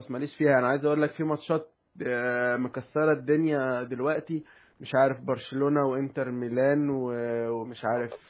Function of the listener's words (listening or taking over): listening